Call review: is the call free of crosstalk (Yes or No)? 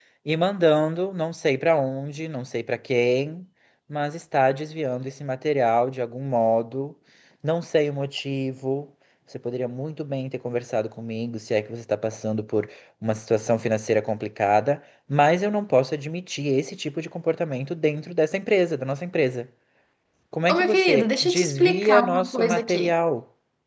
No